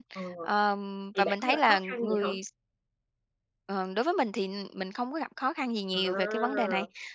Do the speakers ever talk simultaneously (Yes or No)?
Yes